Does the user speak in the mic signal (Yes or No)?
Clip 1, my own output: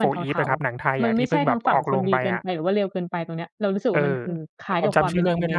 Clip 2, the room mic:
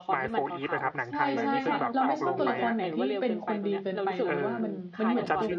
Yes